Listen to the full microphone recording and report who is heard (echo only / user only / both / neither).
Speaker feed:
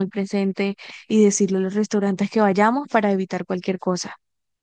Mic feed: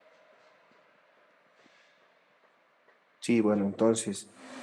user only